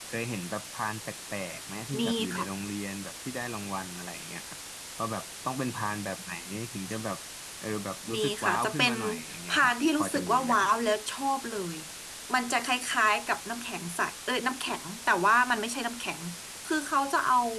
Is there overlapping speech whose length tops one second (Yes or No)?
Yes